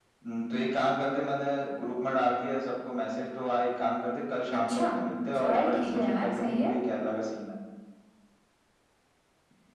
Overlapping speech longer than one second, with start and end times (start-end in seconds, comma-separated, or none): 5.3-6.7